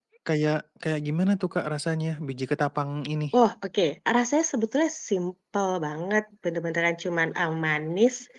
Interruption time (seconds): none

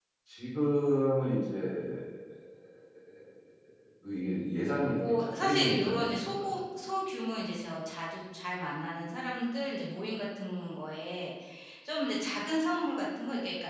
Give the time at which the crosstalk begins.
5 s

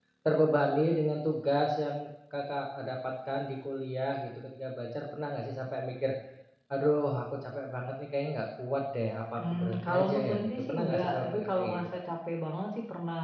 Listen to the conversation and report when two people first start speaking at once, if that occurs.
9 s

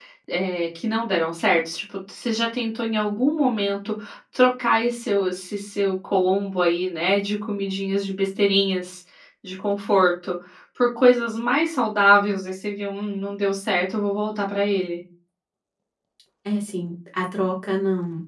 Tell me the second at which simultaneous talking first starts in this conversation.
none

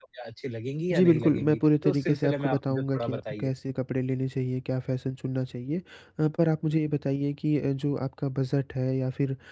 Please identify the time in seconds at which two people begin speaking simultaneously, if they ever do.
1 s

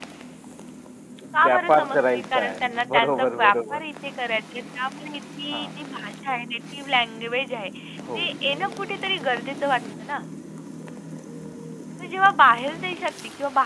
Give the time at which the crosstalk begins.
1 s

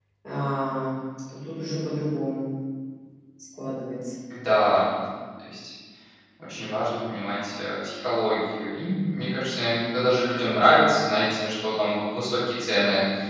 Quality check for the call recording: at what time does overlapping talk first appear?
none

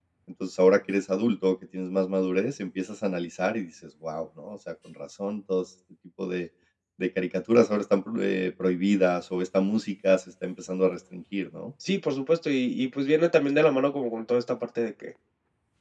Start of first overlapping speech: none

